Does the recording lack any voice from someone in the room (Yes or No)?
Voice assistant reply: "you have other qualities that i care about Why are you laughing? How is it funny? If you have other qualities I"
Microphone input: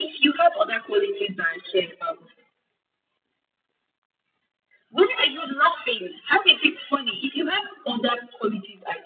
Yes